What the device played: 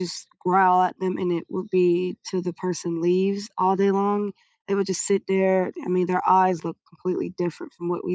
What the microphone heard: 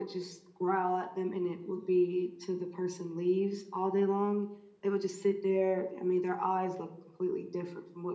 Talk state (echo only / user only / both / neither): echo only